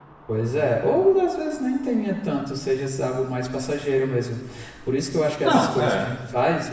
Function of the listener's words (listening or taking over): listening